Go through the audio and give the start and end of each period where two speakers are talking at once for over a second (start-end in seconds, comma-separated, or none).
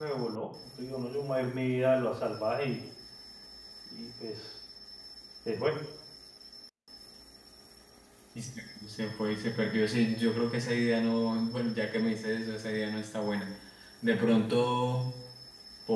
none